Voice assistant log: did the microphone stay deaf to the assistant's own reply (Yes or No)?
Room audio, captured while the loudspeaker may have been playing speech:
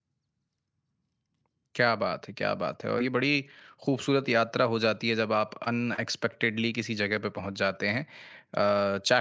Yes